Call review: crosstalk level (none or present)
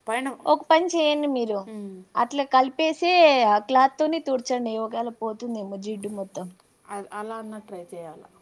none